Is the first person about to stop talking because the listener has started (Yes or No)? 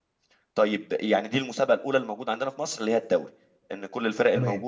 No